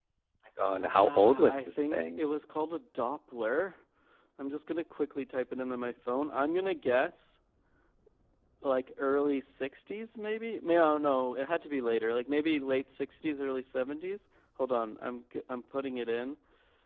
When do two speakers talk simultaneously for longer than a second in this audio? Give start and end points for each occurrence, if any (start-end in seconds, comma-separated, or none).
1.0-2.2